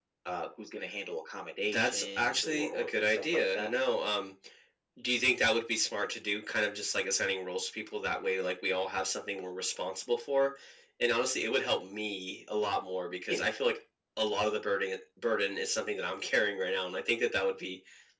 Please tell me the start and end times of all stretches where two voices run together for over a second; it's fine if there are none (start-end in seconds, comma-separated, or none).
1.7-3.7